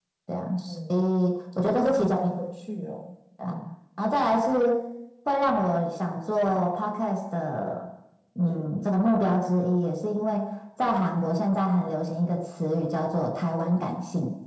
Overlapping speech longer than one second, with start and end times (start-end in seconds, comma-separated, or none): none